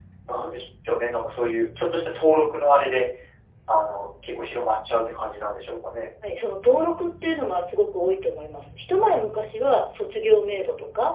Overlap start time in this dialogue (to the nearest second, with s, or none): none